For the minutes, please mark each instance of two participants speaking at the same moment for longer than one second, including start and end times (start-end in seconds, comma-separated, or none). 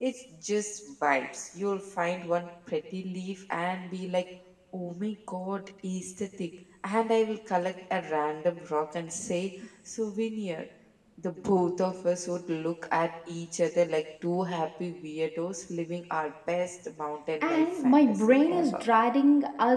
17.4-18.8